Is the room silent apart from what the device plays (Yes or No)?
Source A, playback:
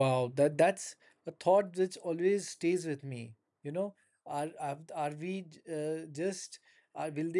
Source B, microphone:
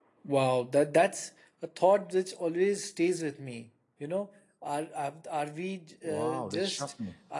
No